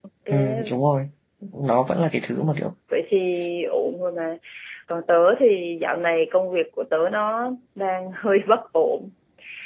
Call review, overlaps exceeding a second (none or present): none